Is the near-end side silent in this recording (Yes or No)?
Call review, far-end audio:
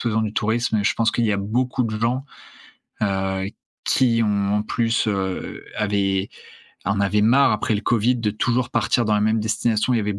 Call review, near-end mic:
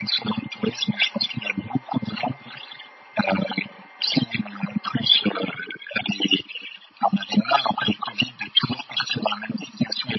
Yes